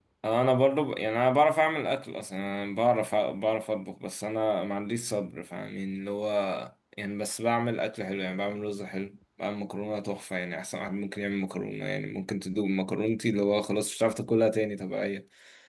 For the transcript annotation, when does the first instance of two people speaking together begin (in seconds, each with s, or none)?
none